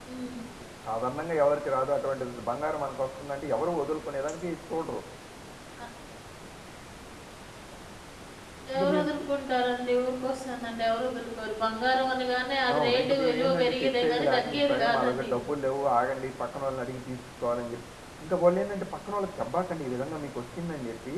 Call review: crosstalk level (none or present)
present